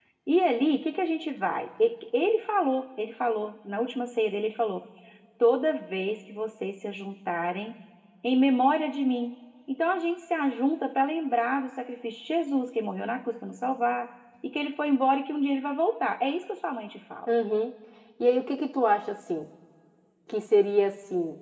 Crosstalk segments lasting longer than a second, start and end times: none

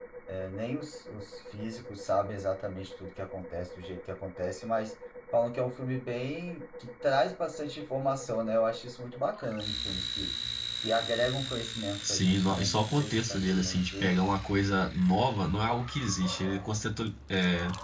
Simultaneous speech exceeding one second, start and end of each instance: 12.1-14.1

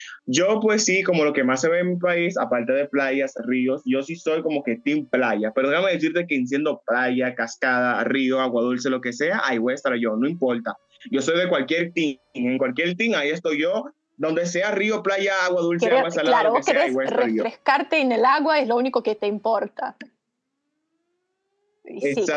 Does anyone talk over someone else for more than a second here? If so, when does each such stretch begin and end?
15.8-17.4

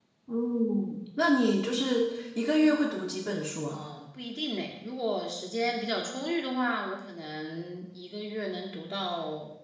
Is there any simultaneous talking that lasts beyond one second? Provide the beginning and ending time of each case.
none

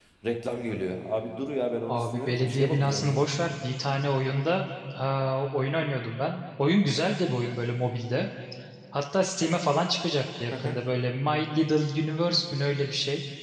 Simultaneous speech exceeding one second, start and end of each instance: 1.9-3.2

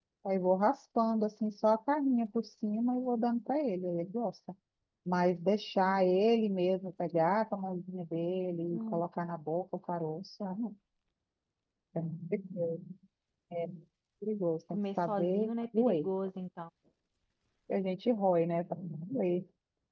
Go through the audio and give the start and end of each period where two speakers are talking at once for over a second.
14.7-16.1

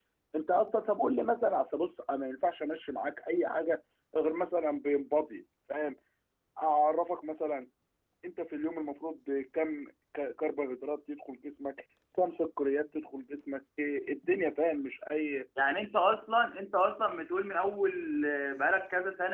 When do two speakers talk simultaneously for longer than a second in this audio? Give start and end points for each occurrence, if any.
none

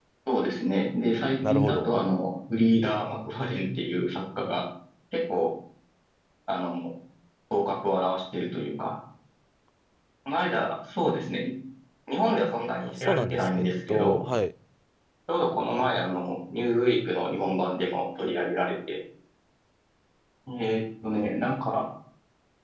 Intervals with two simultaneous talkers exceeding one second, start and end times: 12.8-14.2

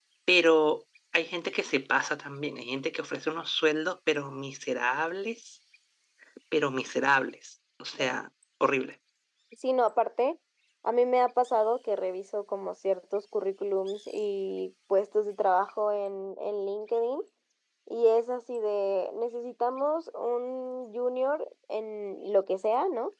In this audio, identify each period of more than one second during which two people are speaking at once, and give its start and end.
none

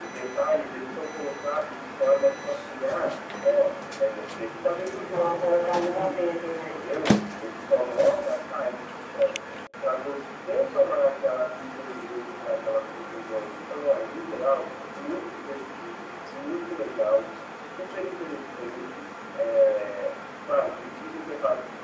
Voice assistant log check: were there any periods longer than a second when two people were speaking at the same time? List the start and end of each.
5.2-6.8

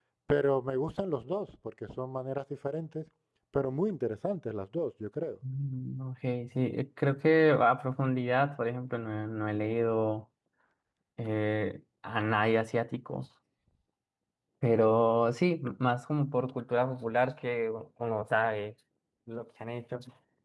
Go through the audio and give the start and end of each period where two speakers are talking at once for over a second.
none

